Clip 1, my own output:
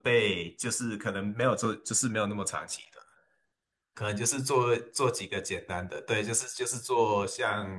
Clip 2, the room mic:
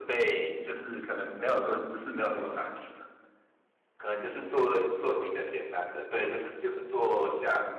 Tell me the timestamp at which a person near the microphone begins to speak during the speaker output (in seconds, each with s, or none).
none